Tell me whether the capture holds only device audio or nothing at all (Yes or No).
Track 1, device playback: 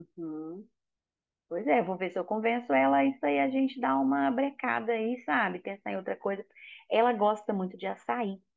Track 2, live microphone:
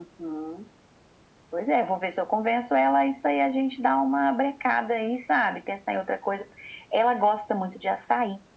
Yes